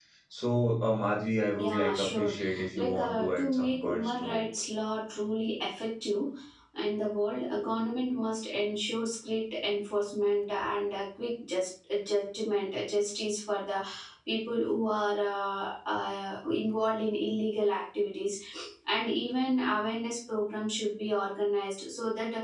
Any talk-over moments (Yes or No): Yes